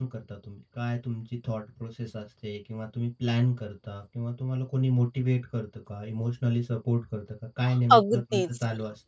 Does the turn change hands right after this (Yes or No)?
Yes